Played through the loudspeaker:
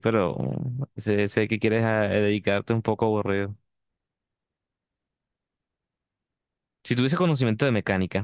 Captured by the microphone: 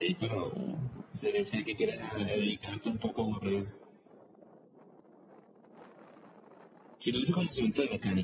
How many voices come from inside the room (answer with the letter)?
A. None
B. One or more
A